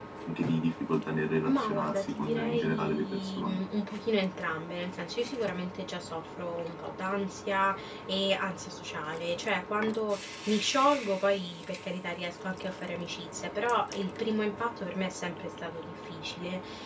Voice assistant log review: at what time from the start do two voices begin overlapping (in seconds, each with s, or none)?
1.4 s